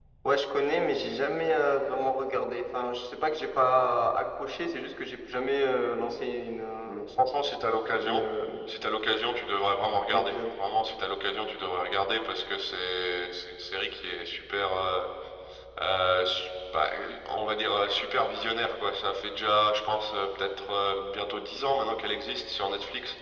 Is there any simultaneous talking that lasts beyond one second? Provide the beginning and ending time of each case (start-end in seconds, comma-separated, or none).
none